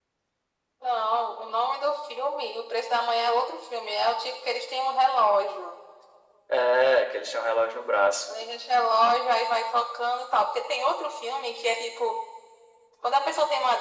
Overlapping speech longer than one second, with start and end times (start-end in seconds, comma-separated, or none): none